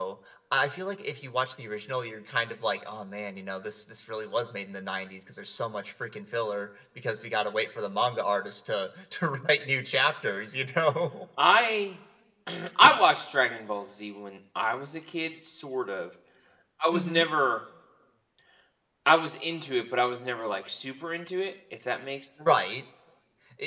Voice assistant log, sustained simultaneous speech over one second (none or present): none